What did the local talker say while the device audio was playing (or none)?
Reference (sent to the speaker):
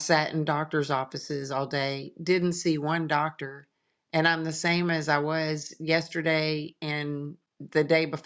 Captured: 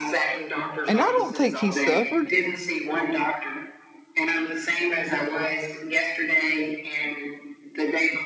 And I don't think he suffered.